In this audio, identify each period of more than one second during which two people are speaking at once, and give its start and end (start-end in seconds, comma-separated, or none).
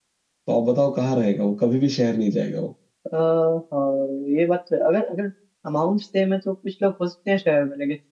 none